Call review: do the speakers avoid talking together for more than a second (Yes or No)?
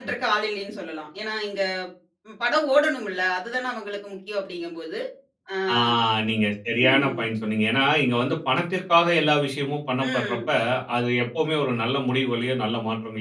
Yes